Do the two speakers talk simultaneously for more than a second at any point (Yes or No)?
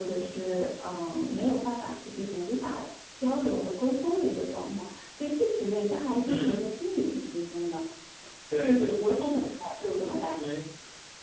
Yes